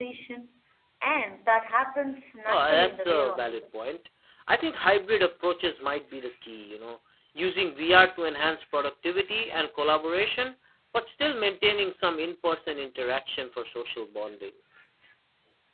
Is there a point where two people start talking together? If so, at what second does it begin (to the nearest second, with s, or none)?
2 s